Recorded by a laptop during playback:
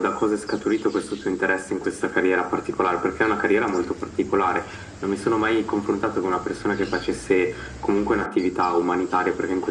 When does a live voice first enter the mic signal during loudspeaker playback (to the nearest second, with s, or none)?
none